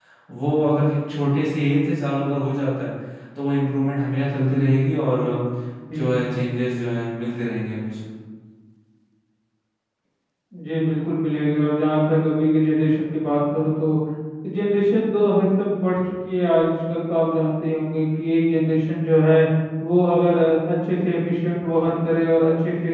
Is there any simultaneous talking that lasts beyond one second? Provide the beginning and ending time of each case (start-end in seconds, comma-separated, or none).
none